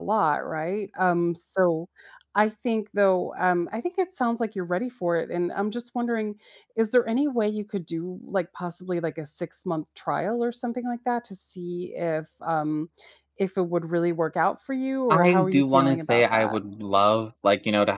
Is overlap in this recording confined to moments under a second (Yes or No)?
No